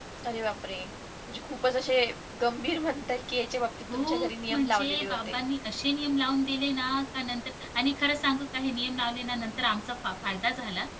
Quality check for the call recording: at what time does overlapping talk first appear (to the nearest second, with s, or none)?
4 s